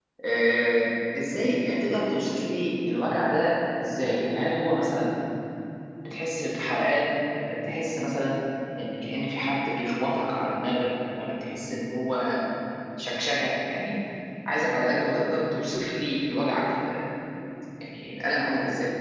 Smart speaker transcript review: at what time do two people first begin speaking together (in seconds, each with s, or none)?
none